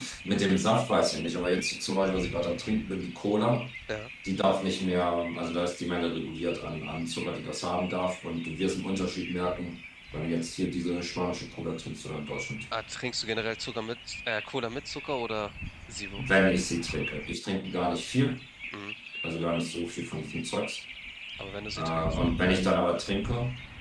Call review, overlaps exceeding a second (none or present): none